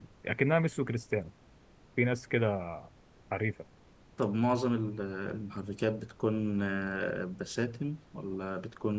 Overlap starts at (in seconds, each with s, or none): none